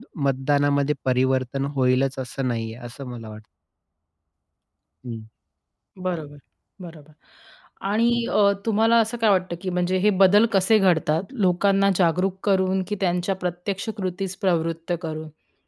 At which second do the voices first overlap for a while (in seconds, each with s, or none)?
none